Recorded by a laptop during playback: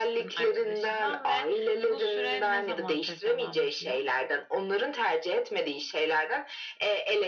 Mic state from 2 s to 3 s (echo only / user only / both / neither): echo only